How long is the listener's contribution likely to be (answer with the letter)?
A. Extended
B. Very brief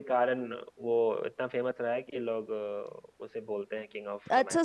A